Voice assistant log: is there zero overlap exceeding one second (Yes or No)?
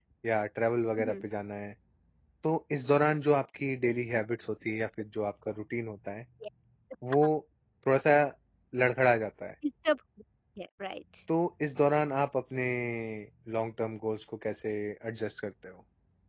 Yes